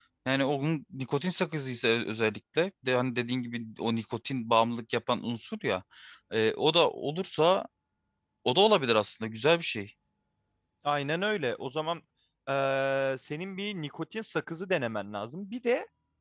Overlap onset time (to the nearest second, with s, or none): none